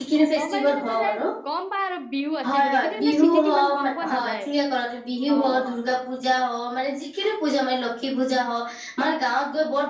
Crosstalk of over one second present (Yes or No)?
Yes